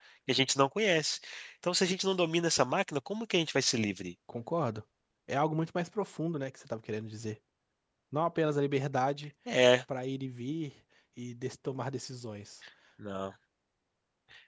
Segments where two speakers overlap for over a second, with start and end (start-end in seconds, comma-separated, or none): none